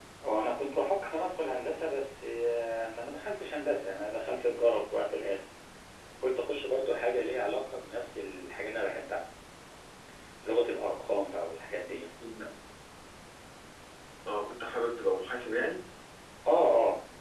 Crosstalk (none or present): none